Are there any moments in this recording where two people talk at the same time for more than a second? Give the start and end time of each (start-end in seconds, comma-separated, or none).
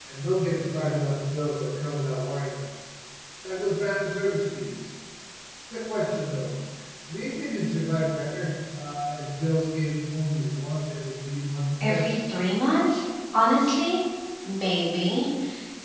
none